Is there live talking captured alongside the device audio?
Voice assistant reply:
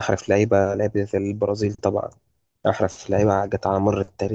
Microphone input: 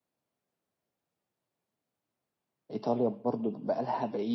Yes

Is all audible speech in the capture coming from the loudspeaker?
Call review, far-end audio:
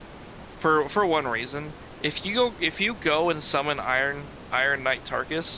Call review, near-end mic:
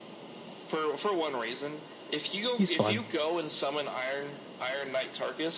No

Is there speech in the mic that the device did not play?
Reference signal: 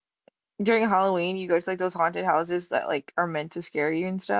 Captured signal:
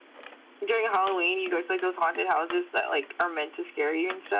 No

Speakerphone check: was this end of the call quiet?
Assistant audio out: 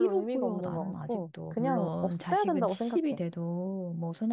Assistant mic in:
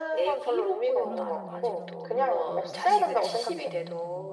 No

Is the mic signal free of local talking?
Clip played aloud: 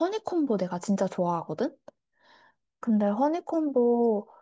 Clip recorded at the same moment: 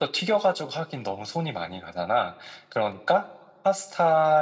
No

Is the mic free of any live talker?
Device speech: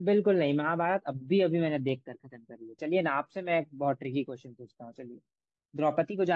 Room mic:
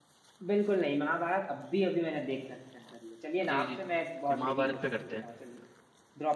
No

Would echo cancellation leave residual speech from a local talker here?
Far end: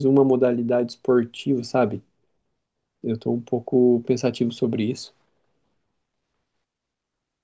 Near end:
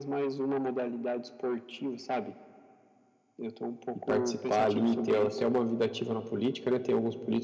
Yes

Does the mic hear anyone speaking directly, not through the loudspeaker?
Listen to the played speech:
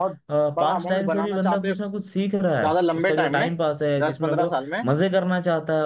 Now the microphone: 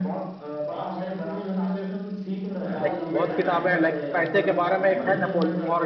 Yes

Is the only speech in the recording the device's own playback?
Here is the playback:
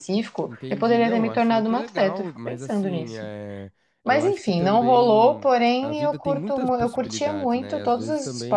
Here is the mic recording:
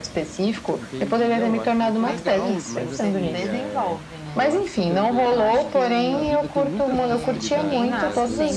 No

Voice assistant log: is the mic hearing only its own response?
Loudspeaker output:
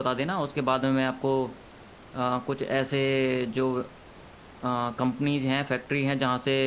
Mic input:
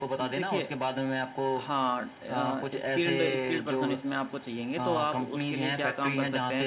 No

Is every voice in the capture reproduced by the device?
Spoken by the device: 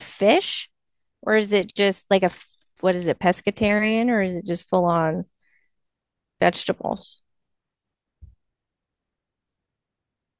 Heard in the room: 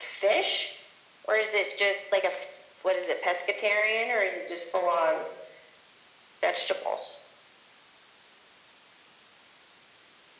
Yes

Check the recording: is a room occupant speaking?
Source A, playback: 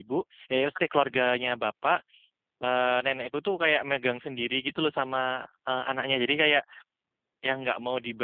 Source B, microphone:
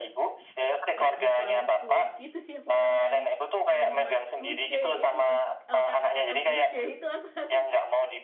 Yes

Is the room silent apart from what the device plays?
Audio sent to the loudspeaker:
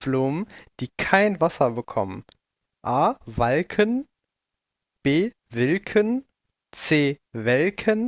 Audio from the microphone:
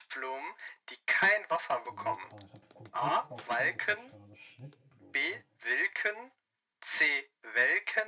No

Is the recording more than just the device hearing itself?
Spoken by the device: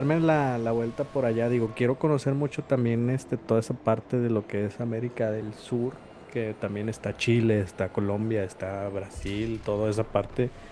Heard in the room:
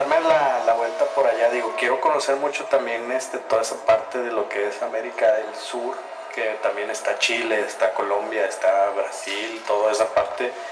No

